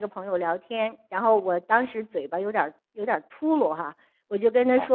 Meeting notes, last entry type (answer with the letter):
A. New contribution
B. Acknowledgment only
B